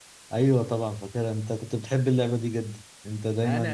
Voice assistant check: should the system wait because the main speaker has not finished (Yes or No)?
No